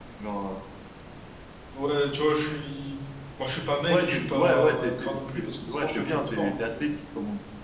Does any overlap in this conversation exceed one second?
Yes, from 3.9 s

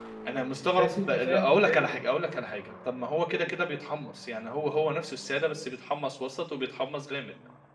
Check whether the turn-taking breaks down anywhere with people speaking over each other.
Yes, from 0.8 s

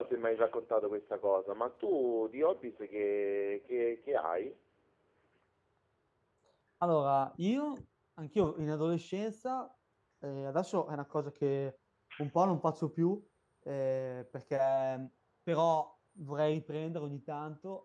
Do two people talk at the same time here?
No

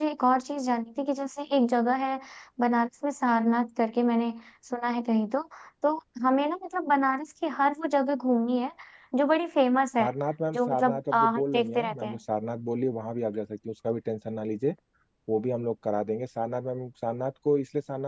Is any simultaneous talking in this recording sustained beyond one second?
Yes, from 10.5 s

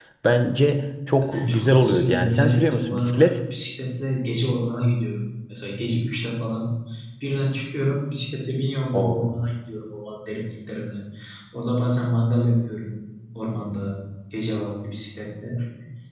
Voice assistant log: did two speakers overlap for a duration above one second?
Yes, from 1.3 s

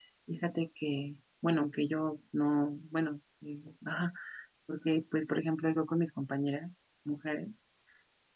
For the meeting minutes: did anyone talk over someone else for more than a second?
No

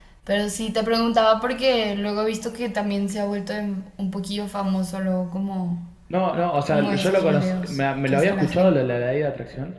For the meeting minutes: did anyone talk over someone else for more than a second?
Yes, from 6.6 s

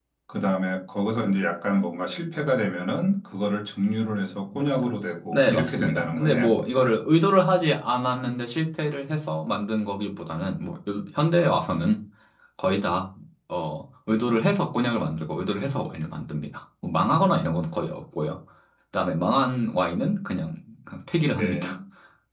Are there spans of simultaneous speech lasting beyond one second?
Yes, from 5.3 s

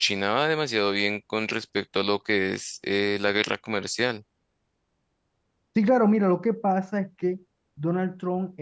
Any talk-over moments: No

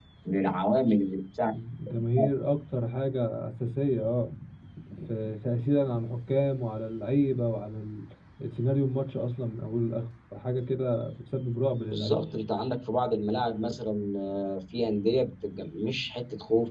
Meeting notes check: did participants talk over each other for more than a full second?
No

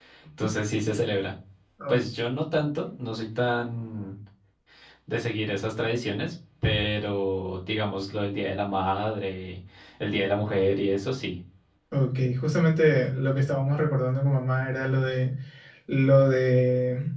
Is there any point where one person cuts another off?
No

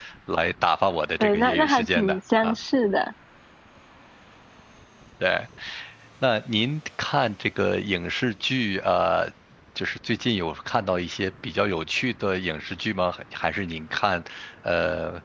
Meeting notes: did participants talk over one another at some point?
Yes, from 1.2 s

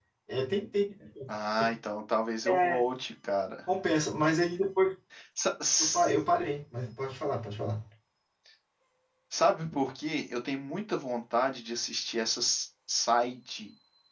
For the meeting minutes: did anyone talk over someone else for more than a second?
No

